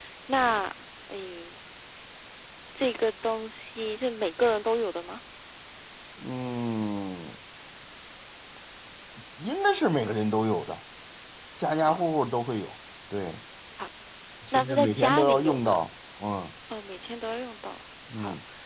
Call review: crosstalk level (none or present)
present